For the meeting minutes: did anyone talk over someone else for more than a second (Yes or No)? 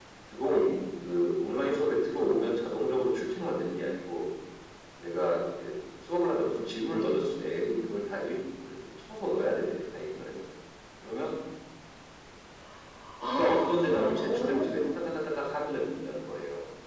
Yes